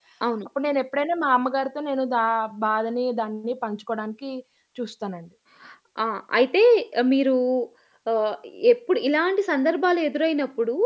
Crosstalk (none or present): none